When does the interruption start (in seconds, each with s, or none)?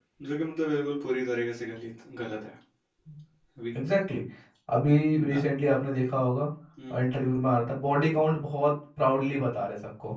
none